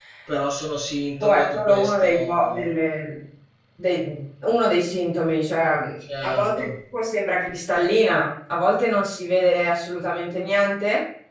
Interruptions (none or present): present